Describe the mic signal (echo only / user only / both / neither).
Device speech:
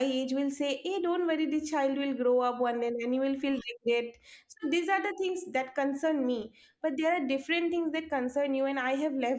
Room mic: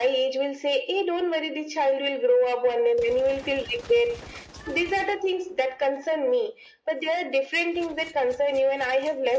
echo only